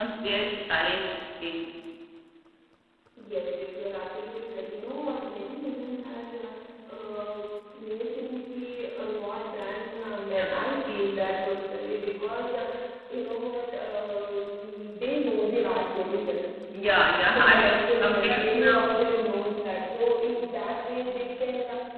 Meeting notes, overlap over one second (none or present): present